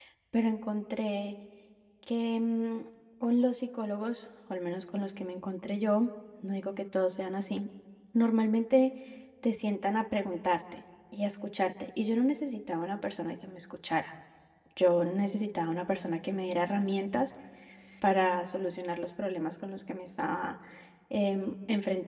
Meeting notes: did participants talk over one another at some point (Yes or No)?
No